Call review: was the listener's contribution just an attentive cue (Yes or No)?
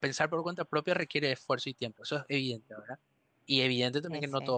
Yes